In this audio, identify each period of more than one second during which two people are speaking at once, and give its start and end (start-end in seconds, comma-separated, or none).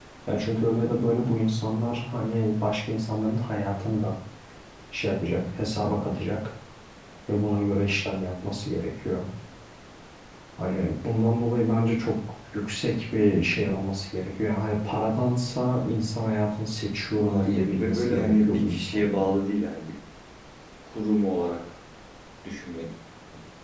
17.3-19.3